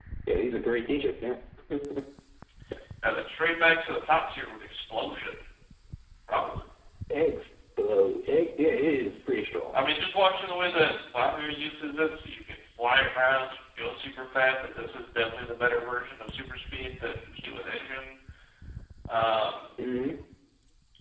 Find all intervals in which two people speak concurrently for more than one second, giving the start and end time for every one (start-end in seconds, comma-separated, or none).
none